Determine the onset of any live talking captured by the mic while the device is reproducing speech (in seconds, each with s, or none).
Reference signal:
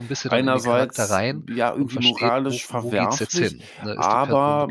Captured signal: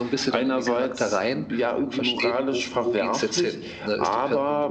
none